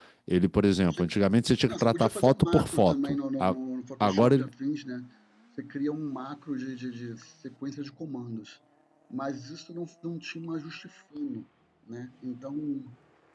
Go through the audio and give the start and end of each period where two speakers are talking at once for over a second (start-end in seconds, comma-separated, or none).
1.7-3.5